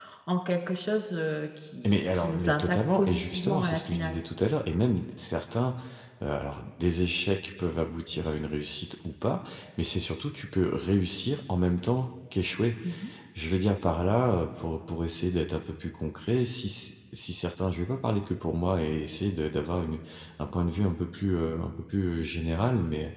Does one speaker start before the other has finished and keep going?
Yes, from 1.8 s

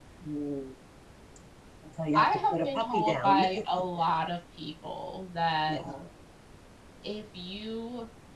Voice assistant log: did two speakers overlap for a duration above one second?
Yes, from 2.1 s

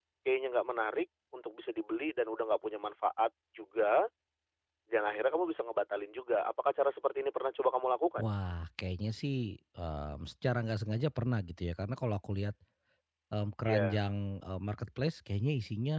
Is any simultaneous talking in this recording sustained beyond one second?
No

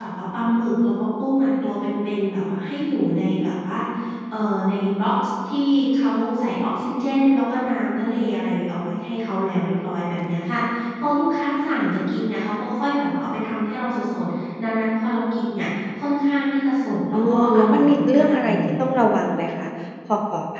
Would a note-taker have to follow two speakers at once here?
Yes, from 17.1 s

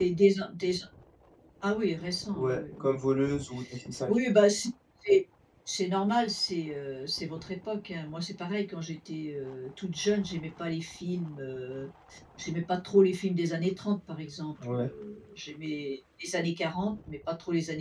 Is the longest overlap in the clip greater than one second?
No

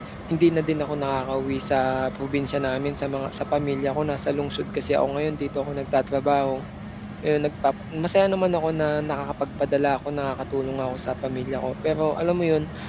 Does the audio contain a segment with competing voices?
No

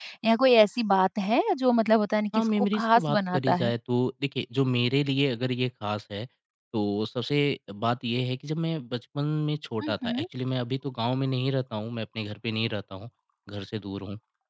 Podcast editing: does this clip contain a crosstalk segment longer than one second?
Yes, from 2.4 s

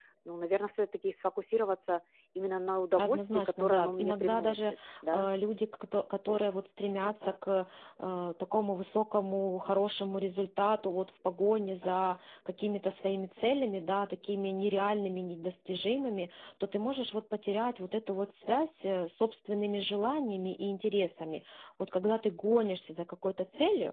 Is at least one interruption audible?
Yes, from 3.0 s

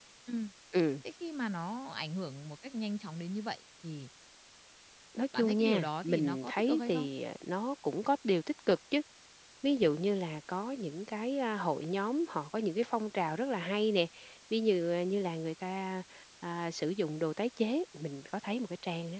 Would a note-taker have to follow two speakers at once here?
Yes, from 5.3 s

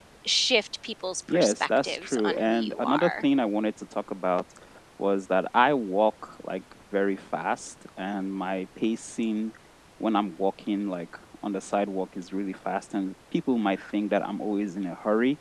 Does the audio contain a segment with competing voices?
Yes, from 1.3 s

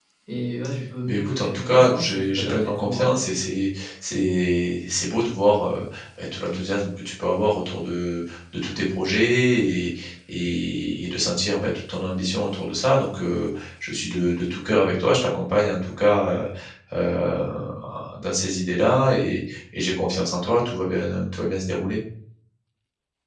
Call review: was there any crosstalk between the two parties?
Yes, from 1.1 s

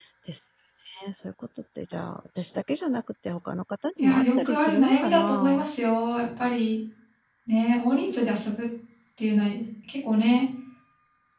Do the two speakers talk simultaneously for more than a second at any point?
Yes, from 4.0 s

